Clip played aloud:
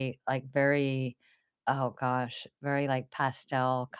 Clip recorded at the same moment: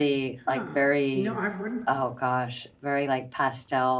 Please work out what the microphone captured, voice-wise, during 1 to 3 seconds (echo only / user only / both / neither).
both